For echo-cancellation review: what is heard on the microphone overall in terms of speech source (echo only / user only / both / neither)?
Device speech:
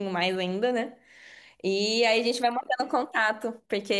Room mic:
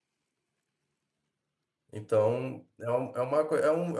user only